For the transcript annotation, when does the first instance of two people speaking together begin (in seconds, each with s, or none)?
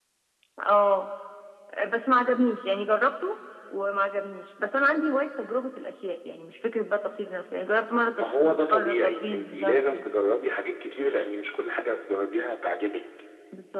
8.1 s